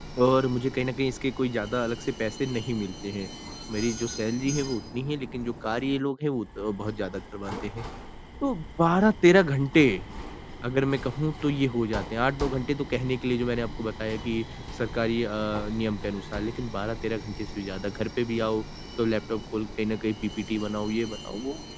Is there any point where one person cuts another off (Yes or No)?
No